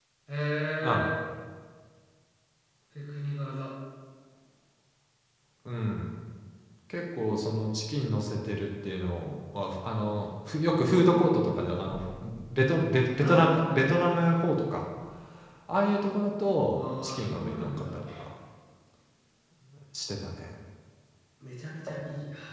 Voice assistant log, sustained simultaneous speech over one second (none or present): present